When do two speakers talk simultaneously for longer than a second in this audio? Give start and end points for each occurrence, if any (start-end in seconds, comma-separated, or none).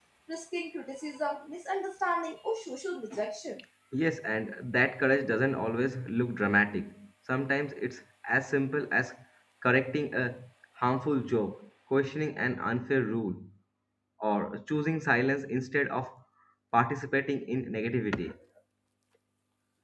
none